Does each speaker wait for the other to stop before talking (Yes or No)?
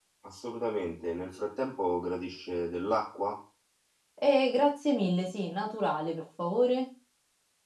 Yes